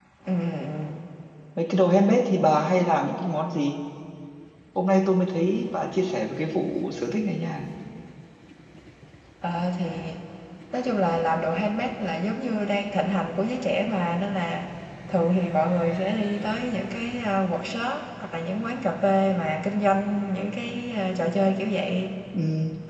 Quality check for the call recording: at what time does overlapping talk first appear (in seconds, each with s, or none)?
none